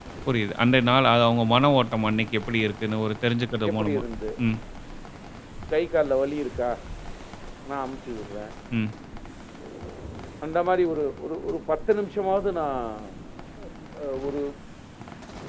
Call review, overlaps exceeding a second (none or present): none